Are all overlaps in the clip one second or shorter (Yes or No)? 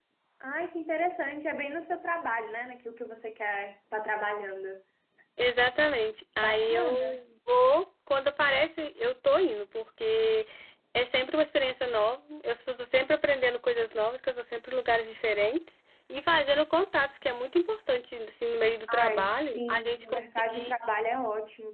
No